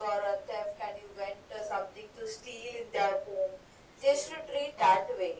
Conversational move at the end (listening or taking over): listening